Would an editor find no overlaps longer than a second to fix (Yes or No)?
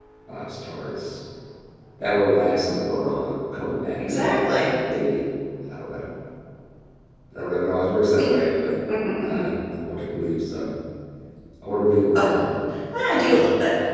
Yes